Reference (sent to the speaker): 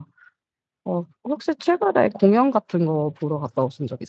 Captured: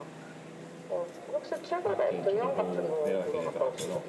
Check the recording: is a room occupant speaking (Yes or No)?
Yes